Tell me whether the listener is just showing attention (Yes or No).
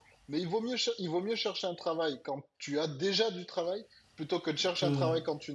Yes